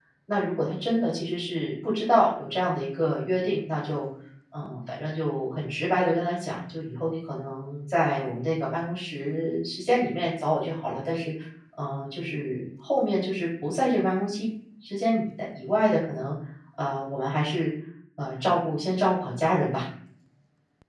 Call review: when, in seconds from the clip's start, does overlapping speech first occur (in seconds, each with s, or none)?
none